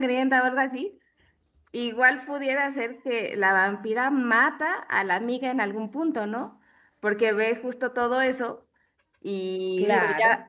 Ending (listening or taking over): listening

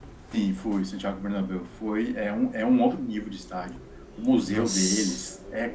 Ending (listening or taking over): listening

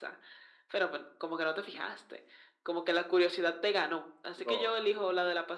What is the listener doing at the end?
listening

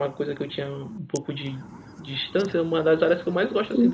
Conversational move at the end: listening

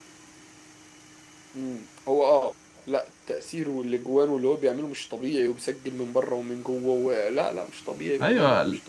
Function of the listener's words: taking over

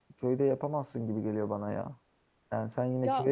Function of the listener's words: listening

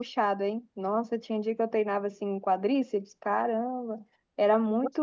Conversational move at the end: listening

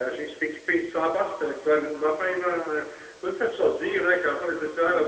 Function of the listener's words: listening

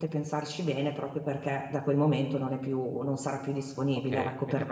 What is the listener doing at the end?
taking over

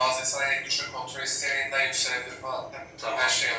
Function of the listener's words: taking over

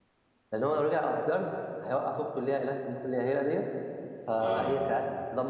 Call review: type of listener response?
listening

